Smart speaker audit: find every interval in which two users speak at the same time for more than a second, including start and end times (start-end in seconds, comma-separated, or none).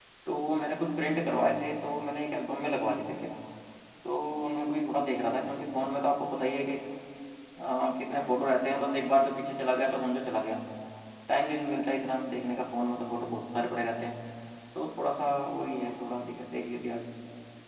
none